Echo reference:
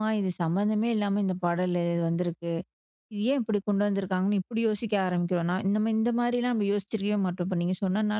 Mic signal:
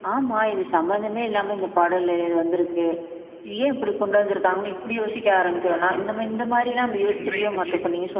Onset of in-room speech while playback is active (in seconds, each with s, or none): 7.1 s